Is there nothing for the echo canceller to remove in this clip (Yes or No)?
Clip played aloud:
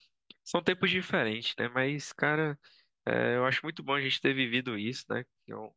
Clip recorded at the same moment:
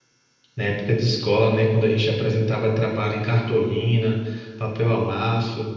Yes